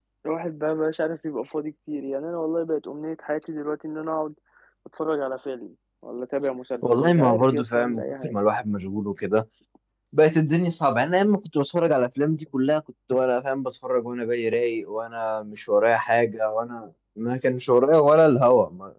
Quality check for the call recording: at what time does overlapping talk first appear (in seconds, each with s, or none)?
6.8 s